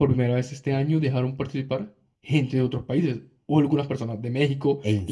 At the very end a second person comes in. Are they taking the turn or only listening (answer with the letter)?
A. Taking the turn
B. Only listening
B